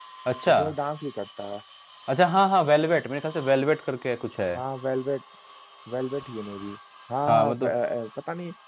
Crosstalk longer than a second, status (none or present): none